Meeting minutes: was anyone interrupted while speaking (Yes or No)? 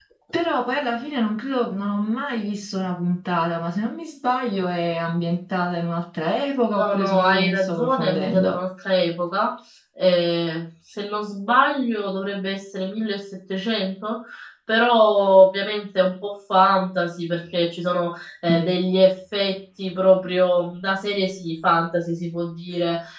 Yes